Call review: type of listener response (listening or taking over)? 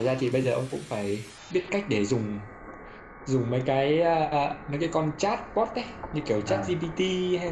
listening